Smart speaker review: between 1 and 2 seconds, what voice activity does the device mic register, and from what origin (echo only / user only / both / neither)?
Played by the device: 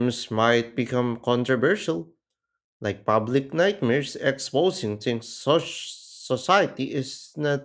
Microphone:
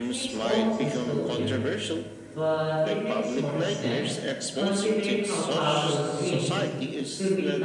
both